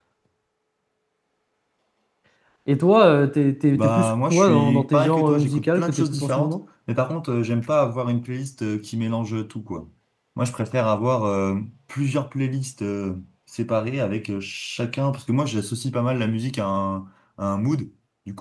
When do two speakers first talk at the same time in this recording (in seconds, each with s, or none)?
3.7 s